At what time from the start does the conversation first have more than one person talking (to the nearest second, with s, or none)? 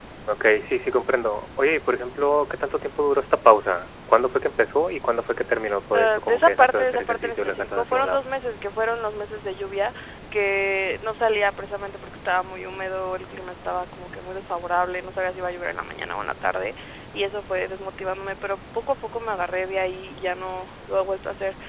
6 s